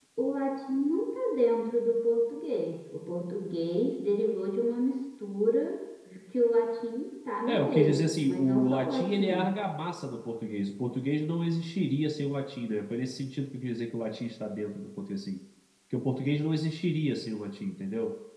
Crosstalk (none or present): present